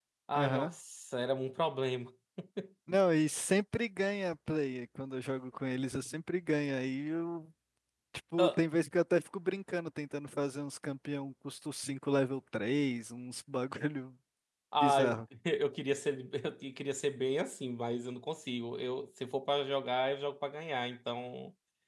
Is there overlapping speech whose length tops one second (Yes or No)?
No